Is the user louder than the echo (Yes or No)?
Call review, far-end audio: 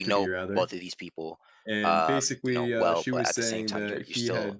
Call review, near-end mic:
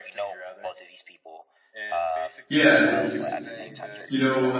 Yes